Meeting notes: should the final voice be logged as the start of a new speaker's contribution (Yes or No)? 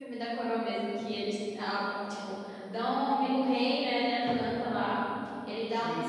No